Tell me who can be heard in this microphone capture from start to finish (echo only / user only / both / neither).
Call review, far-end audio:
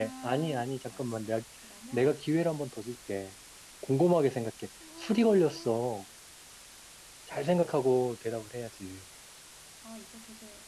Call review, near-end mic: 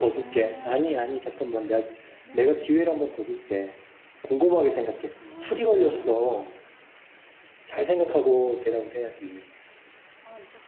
echo only